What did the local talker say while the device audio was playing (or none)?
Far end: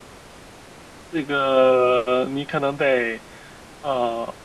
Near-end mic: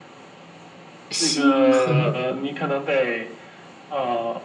星河，